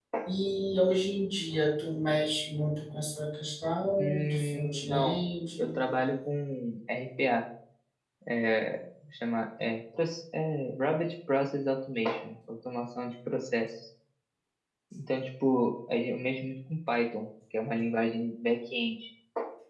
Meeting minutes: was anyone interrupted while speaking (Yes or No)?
Yes